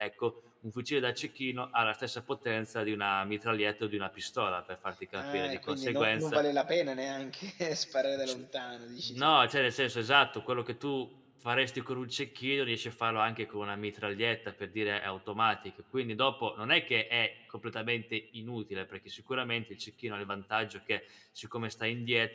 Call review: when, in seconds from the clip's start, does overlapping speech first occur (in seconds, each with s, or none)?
5.2 s